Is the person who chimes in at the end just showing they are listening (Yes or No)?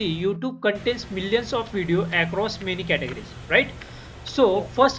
Yes